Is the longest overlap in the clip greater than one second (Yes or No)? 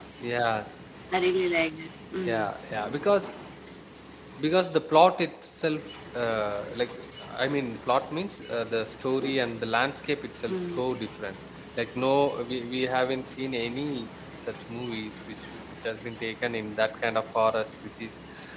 No